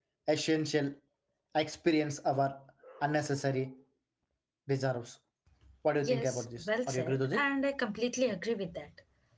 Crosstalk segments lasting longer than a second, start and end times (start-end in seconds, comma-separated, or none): 6.0-7.4